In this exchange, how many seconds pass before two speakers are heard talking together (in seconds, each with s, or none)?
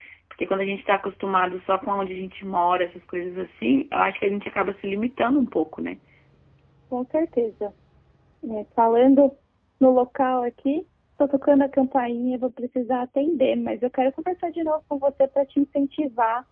none